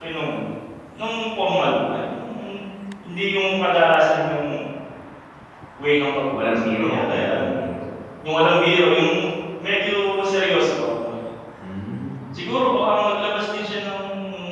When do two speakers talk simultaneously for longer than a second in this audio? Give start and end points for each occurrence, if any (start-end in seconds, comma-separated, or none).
6.3-7.6